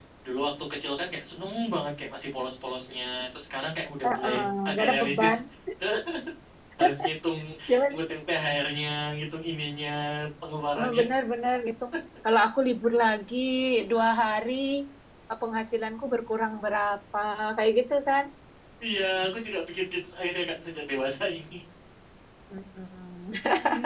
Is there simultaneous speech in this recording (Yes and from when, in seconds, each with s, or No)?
Yes, from 4.1 s